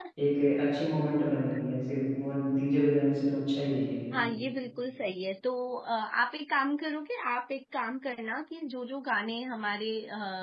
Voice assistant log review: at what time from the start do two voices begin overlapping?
none

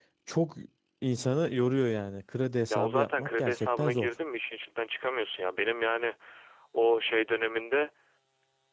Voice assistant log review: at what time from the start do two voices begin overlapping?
2.7 s

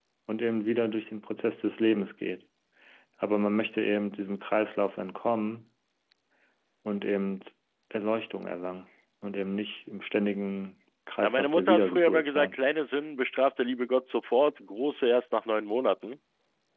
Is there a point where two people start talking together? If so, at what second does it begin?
11.2 s

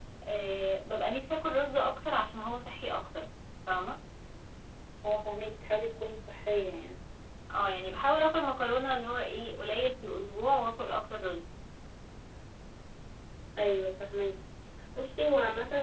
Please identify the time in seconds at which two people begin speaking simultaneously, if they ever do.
none

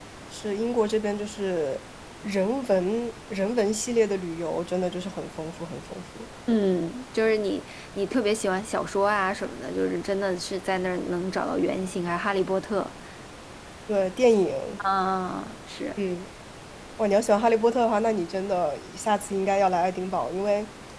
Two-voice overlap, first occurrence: none

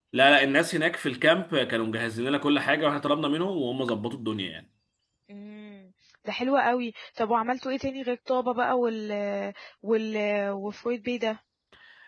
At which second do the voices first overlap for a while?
none

